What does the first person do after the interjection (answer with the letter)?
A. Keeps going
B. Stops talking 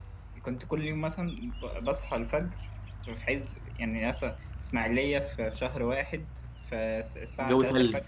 A